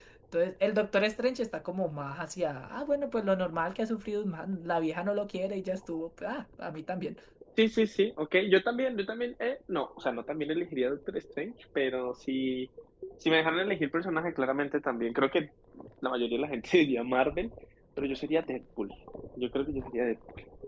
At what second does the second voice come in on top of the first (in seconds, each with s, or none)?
none